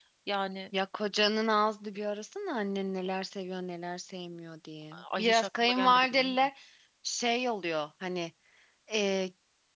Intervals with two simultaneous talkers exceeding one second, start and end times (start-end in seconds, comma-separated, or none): 5.2-6.5